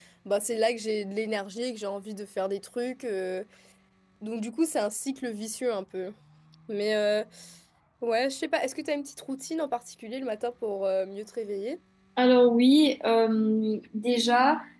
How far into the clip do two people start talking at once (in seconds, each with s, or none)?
none